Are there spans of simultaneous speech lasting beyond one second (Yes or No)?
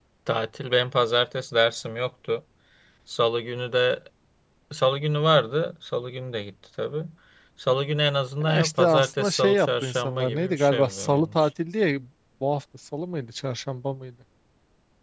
Yes